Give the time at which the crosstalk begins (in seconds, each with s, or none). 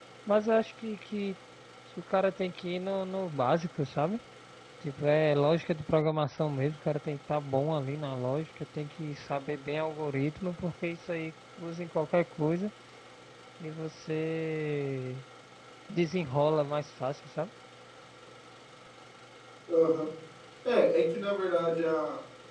none